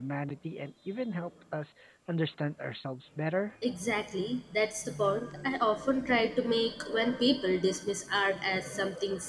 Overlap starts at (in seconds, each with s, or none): none